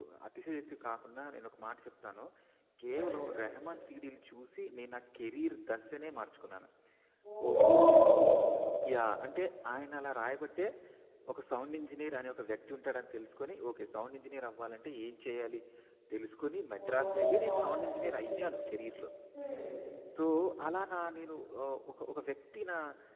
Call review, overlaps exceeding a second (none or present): present